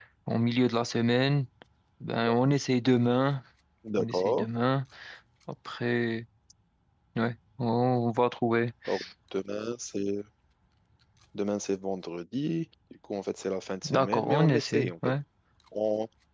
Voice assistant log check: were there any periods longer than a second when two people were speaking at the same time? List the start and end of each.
13.8-15.1

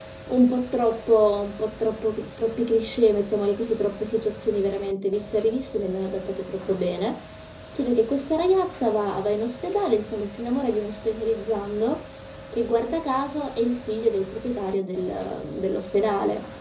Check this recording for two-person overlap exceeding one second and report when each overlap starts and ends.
none

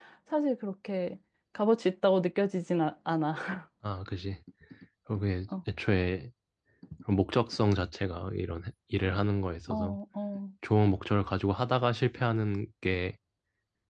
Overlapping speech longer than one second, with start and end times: none

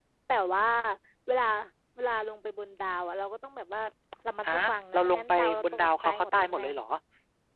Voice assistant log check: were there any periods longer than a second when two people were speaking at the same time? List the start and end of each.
4.9-6.6

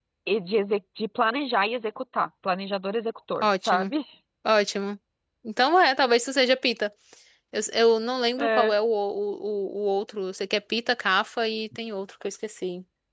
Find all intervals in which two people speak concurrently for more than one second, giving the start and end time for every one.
none

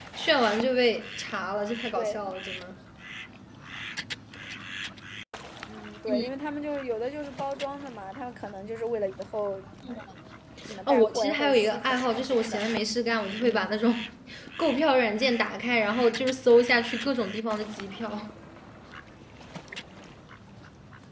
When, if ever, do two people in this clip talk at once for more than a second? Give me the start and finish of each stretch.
10.9-12.6

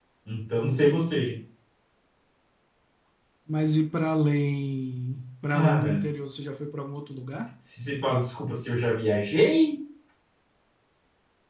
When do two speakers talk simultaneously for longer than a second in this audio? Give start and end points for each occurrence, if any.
none

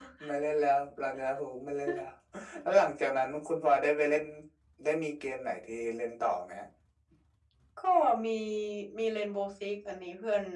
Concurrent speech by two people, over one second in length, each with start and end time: none

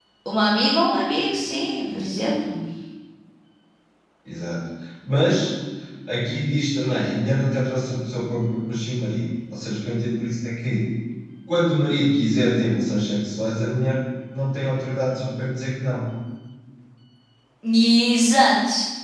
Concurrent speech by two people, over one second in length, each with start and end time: none

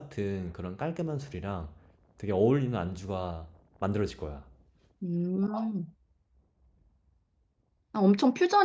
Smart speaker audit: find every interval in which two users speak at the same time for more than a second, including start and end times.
none

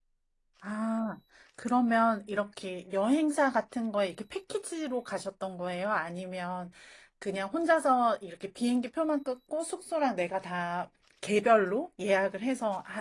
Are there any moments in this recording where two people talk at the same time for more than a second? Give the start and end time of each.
none

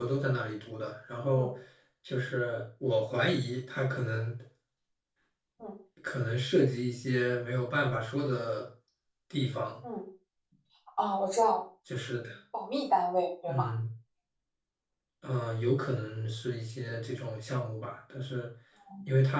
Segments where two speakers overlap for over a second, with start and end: none

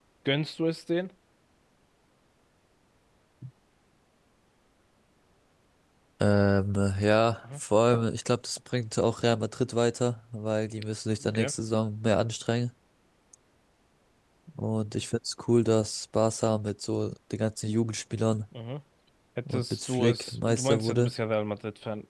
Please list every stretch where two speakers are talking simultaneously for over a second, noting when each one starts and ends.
19.5-21.1

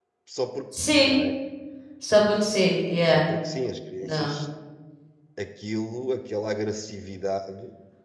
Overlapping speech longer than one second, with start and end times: none

